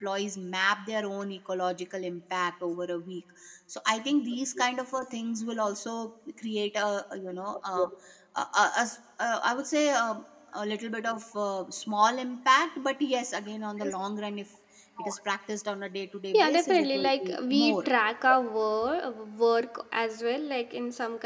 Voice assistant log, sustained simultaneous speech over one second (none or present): present